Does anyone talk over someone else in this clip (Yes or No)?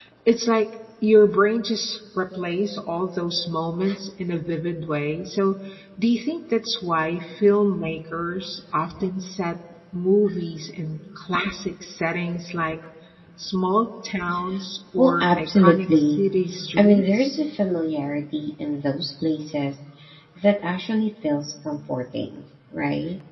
Yes